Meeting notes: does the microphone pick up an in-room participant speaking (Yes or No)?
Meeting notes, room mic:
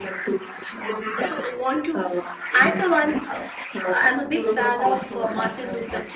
Yes